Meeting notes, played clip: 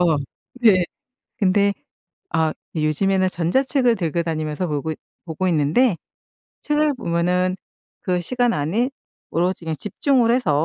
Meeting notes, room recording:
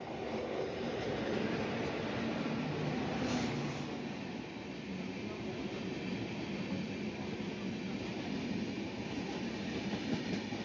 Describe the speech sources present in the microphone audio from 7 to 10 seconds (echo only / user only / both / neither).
neither